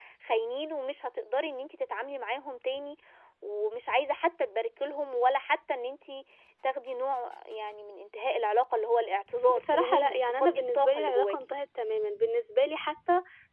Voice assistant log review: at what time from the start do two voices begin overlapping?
9.5 s

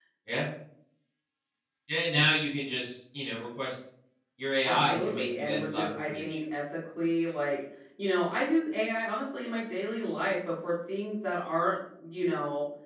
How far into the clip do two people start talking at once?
4.6 s

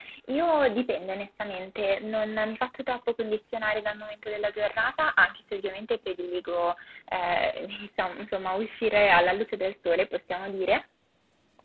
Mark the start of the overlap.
none

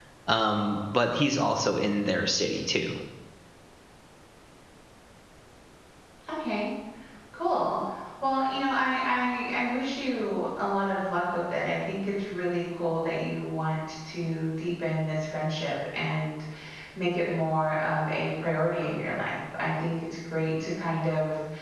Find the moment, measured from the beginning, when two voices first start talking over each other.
none

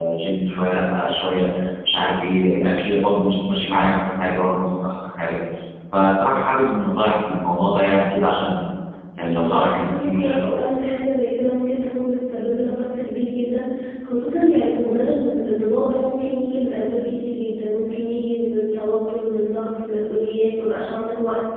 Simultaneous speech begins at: 9.2 s

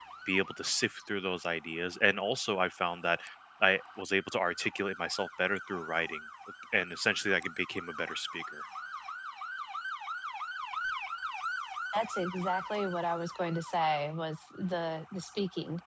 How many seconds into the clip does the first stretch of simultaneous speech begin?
none

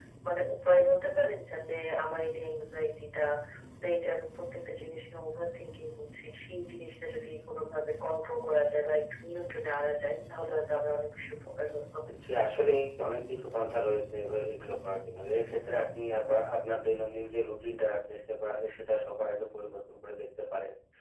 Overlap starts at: none

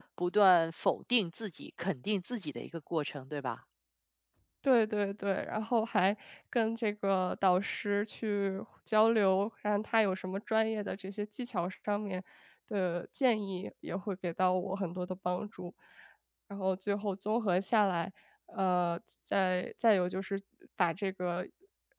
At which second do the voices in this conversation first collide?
none

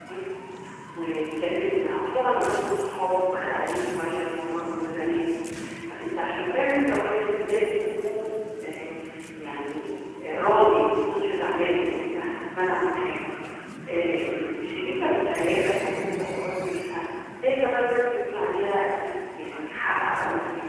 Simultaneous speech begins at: none

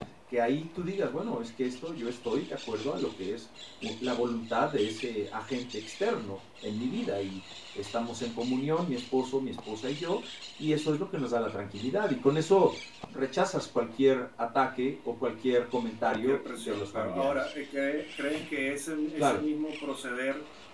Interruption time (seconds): 16.0 s

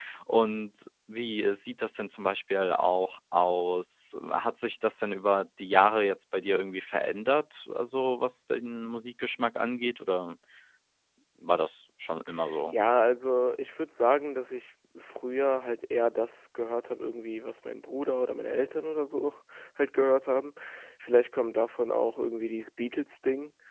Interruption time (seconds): none

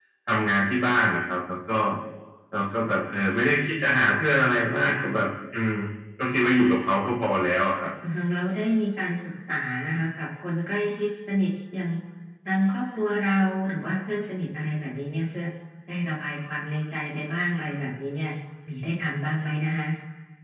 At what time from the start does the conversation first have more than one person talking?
none

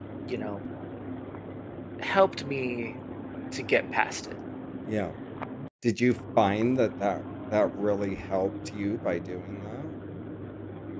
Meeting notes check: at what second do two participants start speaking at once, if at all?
none

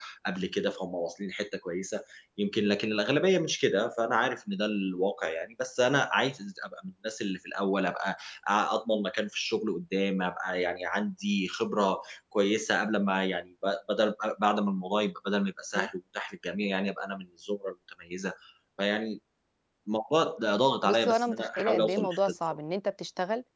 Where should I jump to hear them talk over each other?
20.8 s

